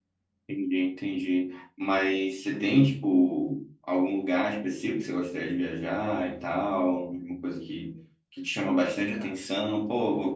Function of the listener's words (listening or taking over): listening